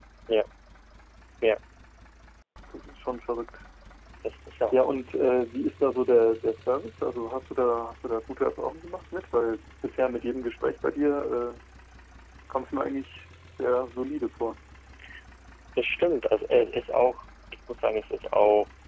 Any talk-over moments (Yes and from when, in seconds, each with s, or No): No